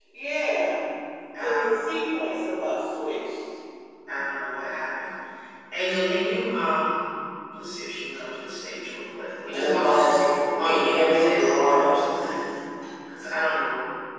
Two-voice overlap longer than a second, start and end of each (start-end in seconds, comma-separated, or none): 10.6-11.9